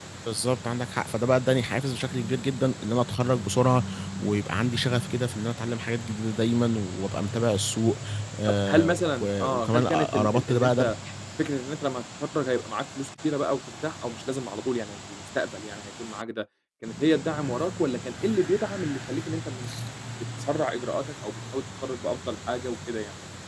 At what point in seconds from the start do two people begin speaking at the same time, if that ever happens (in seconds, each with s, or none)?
8.7 s